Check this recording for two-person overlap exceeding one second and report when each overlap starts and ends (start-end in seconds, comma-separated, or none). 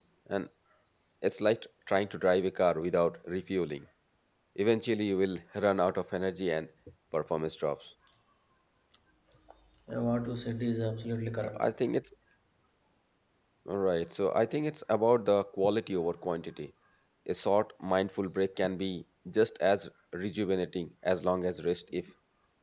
none